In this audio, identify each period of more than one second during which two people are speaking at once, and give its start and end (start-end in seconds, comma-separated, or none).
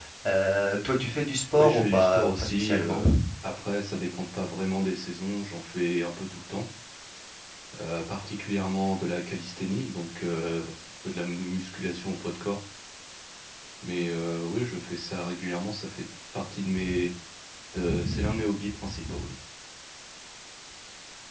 1.6-3.0